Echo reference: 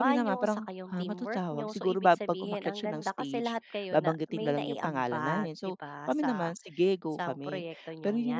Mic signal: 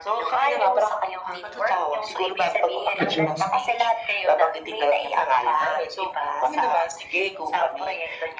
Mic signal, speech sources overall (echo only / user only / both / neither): both